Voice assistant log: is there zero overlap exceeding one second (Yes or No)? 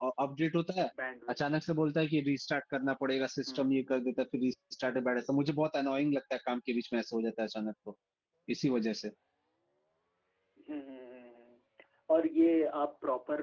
Yes